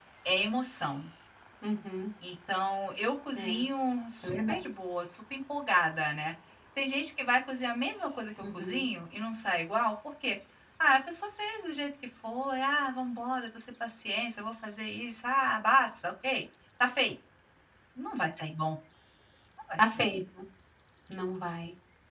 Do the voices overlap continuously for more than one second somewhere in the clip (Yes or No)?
No